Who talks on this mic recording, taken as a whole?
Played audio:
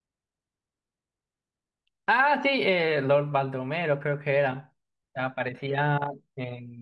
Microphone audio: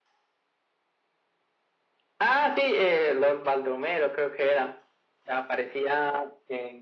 echo only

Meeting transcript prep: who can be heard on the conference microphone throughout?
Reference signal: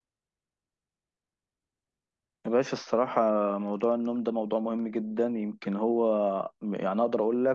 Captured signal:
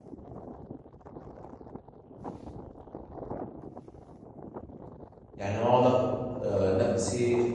user only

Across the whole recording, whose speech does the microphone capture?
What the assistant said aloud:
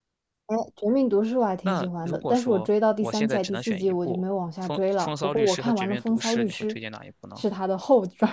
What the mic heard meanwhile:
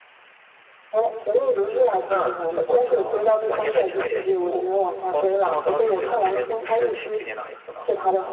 both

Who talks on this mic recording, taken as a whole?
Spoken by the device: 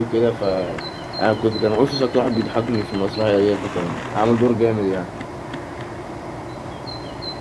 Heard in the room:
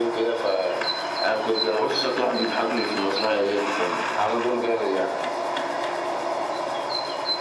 echo only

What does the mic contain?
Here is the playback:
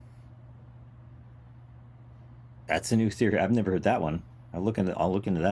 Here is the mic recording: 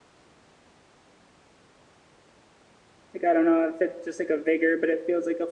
user only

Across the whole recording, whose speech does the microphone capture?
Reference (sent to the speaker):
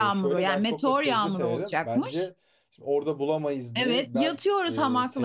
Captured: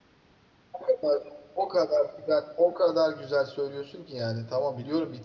user only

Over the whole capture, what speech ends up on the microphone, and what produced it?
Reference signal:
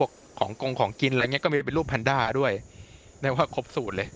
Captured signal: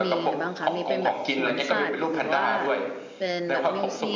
both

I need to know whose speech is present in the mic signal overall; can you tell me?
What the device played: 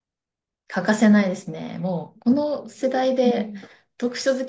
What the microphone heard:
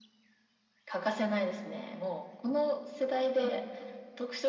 echo only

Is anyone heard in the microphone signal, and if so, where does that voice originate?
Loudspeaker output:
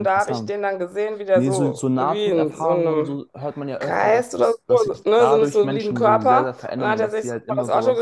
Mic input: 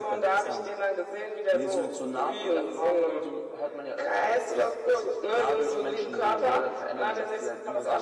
echo only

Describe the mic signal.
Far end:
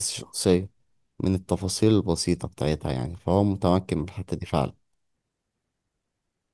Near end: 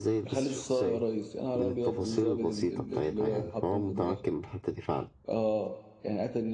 both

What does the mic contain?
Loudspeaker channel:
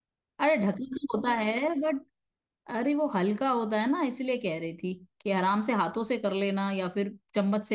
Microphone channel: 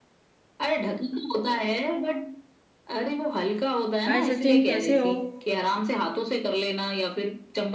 both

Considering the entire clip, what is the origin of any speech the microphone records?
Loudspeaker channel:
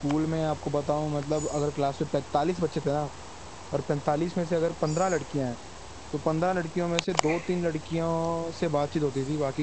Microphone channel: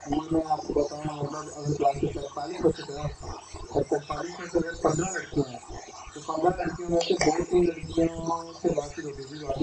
echo only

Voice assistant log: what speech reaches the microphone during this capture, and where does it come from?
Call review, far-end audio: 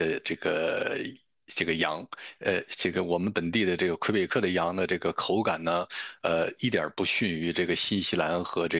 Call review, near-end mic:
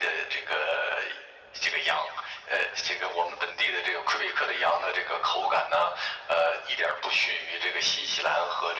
echo only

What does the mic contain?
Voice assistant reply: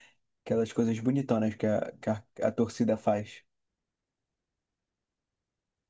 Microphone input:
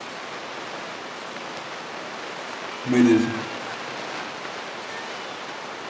user only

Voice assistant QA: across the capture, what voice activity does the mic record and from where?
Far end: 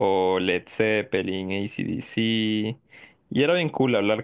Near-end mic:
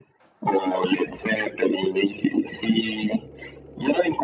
echo only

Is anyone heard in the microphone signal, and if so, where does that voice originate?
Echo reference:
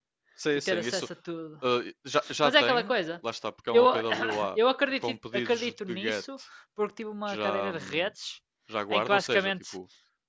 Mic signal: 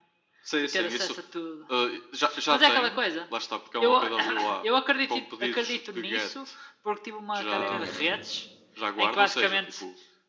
both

